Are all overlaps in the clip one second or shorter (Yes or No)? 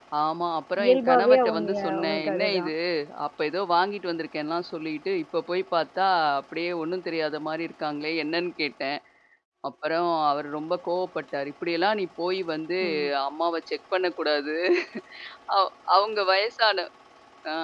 No